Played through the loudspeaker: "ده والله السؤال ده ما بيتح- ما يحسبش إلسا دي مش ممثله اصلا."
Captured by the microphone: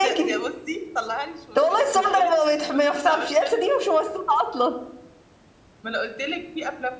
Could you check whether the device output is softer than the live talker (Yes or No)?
No